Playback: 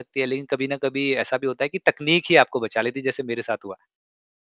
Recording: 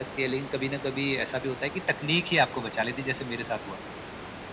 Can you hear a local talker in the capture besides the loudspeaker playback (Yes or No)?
No